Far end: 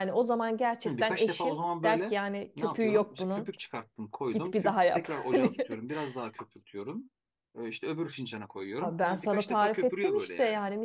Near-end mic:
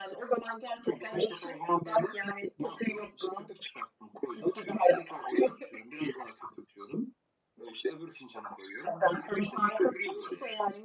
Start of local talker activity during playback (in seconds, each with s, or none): none